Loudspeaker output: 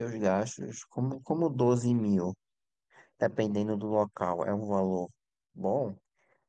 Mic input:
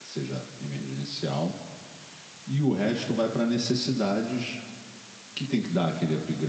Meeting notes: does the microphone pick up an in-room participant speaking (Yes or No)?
Yes